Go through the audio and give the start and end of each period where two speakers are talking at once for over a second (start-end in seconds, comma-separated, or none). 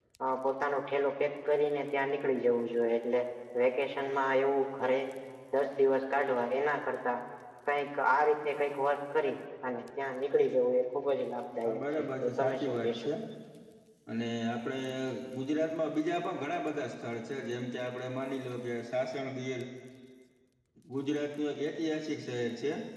11.6-13.1